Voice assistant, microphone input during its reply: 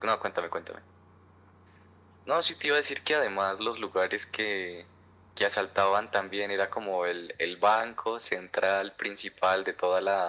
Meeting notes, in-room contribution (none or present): none